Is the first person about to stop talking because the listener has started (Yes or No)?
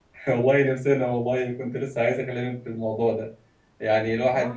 No